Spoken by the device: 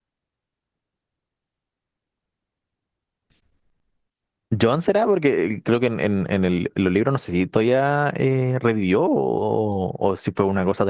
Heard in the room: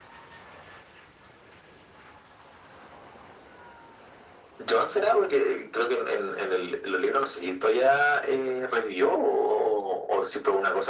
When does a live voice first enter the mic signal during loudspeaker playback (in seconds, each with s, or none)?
none